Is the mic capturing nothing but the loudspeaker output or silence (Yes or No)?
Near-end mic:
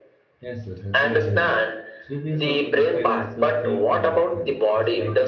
No